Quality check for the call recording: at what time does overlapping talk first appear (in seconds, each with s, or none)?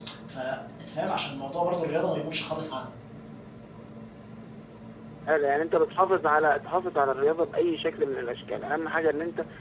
none